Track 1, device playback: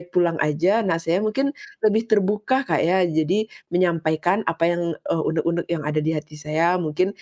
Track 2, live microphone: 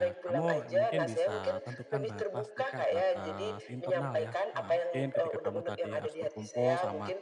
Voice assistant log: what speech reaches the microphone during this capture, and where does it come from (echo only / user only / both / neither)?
both